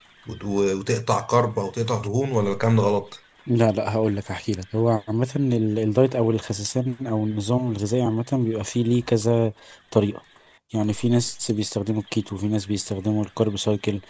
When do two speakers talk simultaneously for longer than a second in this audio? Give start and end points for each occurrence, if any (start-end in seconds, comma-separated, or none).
none